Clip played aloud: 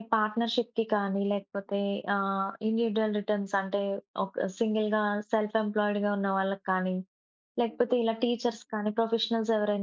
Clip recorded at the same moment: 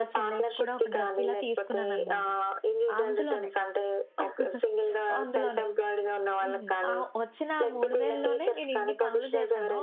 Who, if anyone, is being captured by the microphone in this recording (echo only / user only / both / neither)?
both